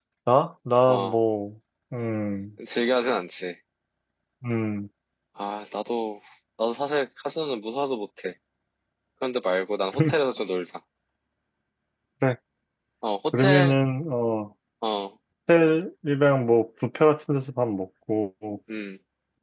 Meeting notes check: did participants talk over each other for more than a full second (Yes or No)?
No